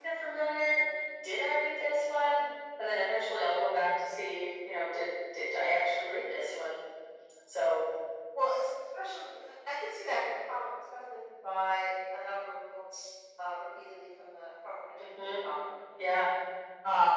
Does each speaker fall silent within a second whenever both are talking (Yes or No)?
Yes